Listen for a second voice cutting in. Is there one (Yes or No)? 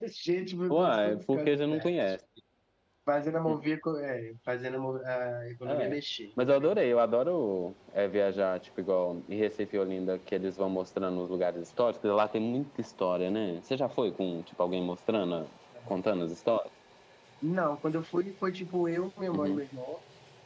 Yes